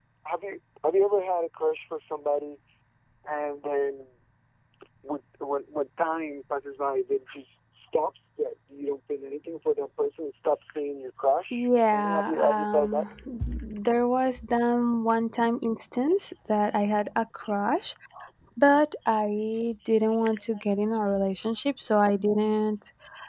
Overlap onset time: 11.5 s

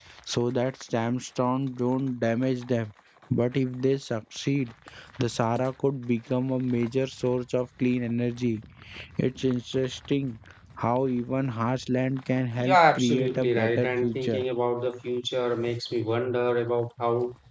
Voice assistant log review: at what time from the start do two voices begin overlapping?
12.6 s

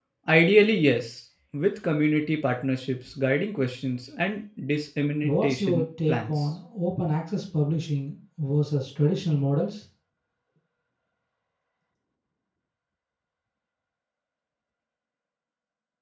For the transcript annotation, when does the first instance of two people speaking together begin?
5.2 s

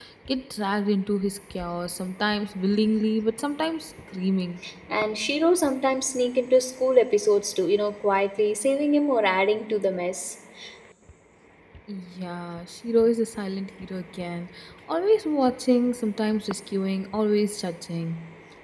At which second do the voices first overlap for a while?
none

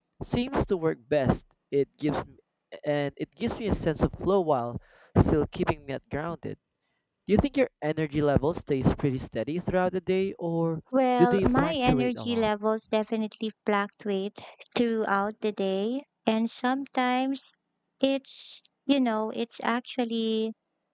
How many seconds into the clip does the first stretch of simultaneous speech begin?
11.2 s

